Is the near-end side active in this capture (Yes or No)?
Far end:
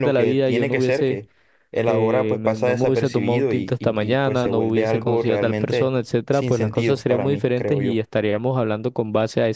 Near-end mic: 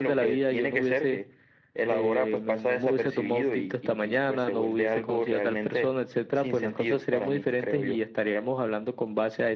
No